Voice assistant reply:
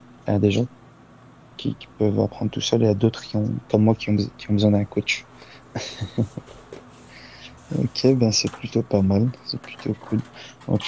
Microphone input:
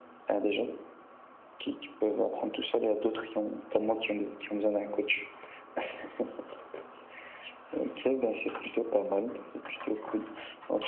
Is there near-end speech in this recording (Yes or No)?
No